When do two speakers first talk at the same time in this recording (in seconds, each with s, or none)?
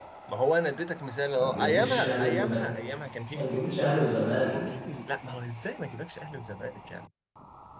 1.4 s